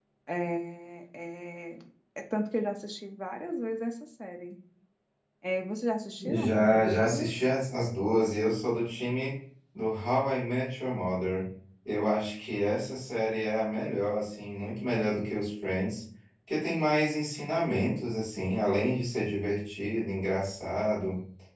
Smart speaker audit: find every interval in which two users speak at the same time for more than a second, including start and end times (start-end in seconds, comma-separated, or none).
6.2-7.5